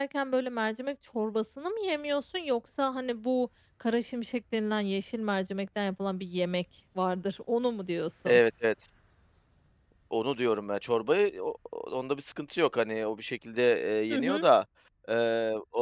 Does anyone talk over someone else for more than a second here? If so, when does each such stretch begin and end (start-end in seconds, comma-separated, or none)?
none